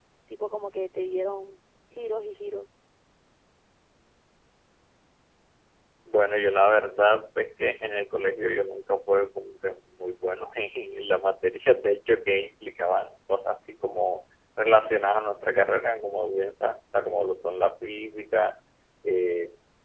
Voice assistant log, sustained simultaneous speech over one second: none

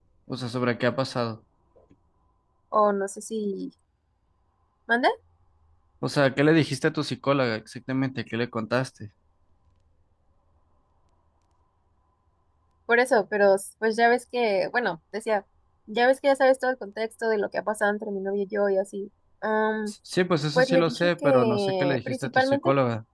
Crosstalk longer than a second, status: present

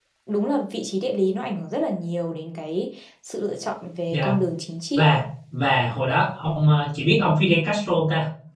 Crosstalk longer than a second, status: none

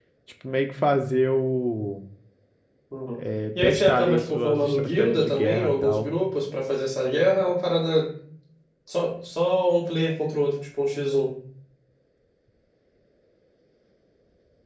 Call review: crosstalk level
present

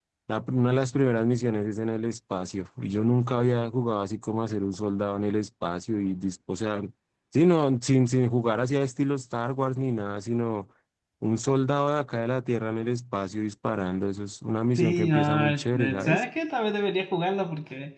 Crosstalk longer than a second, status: present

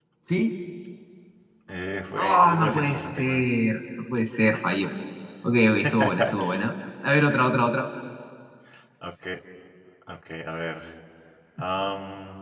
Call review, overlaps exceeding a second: present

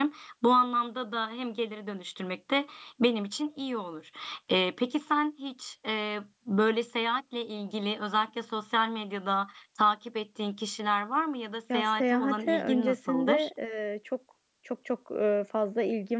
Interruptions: present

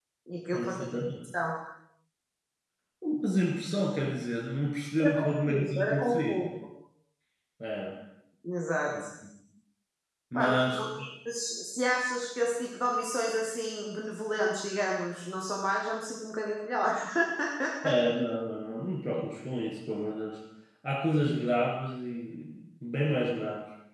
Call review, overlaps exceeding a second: present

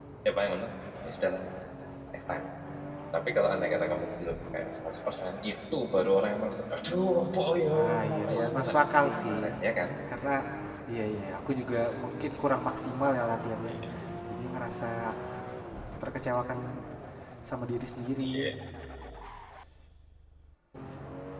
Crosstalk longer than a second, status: present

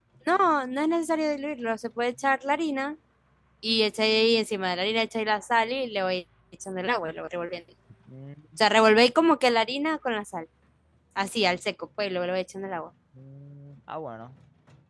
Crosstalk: none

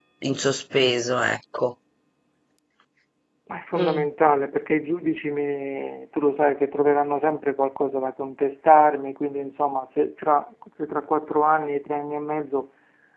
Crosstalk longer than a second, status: none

